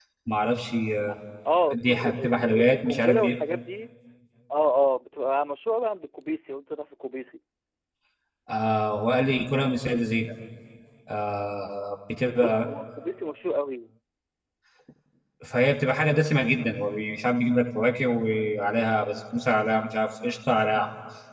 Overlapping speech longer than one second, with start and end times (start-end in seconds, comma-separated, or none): 1.7-3.4